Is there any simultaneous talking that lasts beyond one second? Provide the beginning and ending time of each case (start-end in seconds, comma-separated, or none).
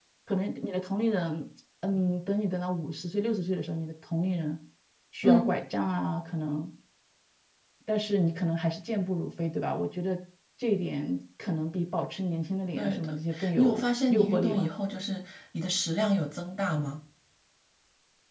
12.8-14.7